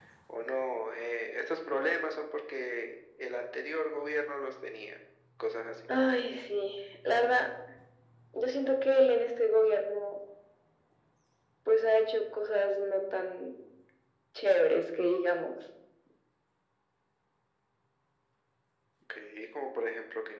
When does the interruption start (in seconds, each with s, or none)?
none